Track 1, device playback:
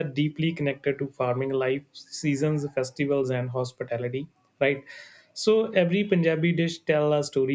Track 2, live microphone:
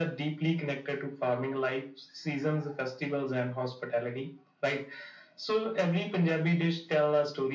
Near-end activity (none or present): none